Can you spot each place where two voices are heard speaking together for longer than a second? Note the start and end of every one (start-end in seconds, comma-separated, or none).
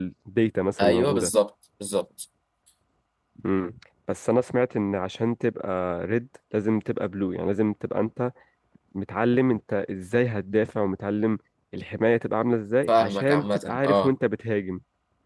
12.9-14.1